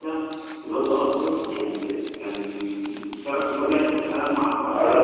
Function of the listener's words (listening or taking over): taking over